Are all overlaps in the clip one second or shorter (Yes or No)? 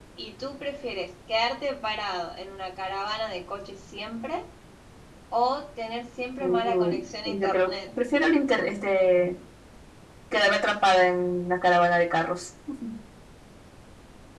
No